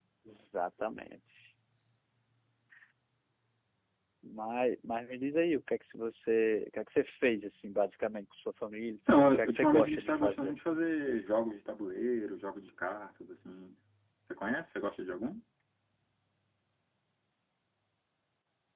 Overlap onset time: 9.1 s

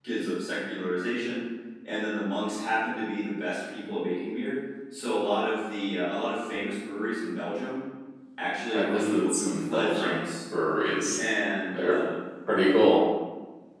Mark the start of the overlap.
8.7 s

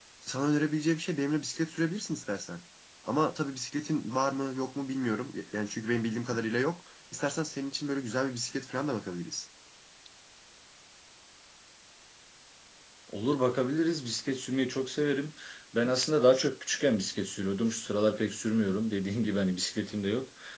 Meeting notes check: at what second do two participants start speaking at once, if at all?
none

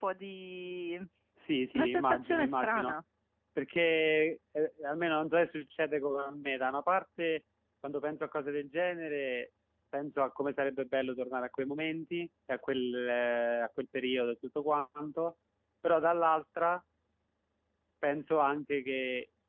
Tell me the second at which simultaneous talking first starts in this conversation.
1.7 s

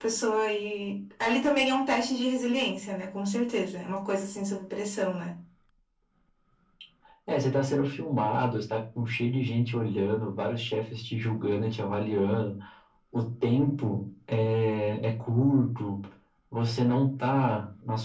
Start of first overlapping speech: none

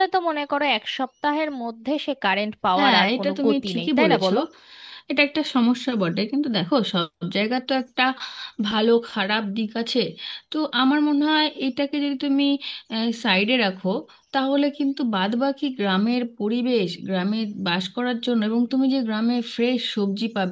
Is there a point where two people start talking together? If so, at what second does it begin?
2.8 s

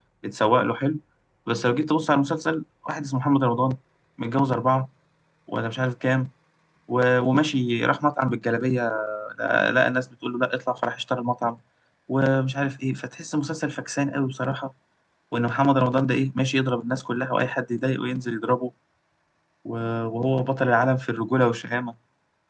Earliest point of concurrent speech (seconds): none

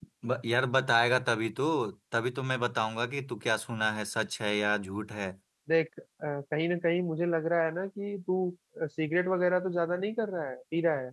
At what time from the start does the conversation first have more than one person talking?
none

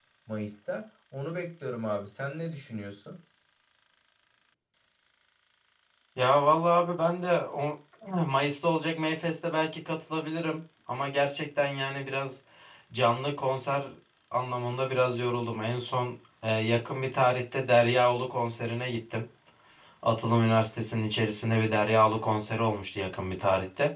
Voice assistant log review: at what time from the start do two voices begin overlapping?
none

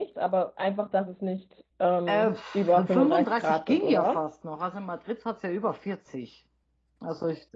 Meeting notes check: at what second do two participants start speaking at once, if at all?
2.1 s

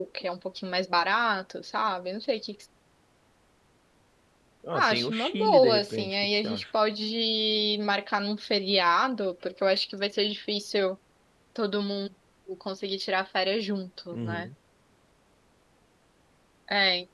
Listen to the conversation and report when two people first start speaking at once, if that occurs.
4.7 s

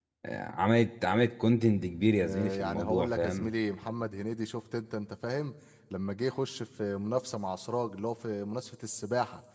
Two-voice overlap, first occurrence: 2.2 s

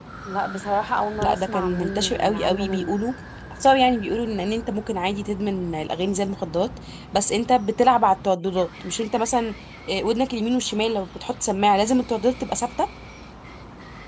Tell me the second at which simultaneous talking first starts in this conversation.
1.2 s

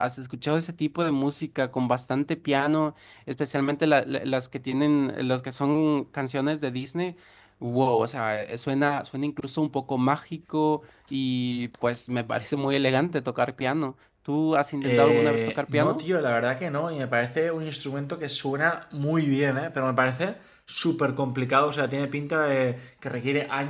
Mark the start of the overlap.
14.8 s

